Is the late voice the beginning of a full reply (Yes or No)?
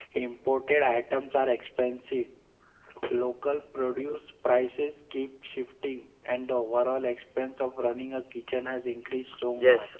Yes